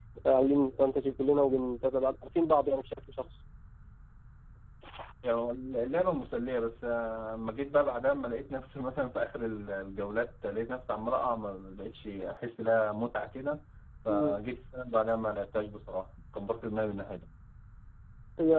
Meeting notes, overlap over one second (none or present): none